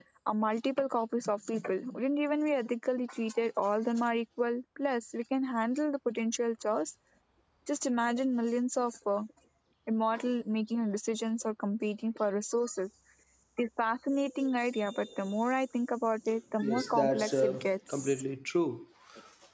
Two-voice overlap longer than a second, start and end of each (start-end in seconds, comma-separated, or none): 16.6-18.2